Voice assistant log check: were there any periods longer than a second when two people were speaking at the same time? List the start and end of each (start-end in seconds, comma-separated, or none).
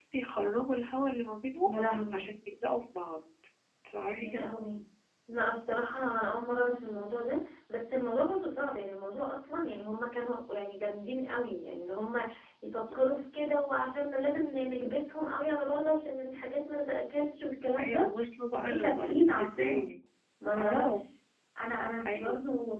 18.6-19.9